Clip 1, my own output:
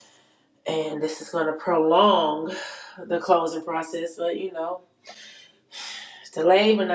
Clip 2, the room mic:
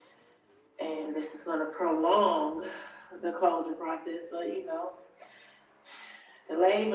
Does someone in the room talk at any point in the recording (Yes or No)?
No